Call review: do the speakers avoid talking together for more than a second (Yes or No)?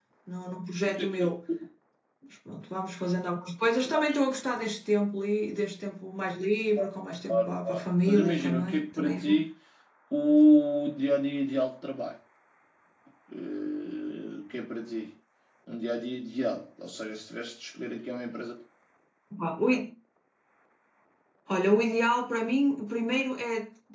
No